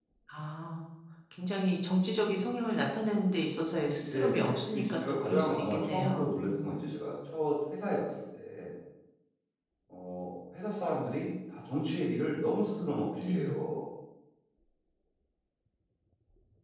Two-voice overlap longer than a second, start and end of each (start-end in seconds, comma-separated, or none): 4.0-6.8